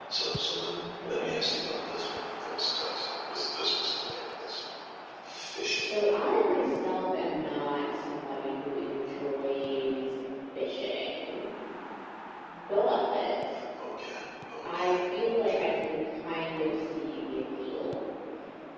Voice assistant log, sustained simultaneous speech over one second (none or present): none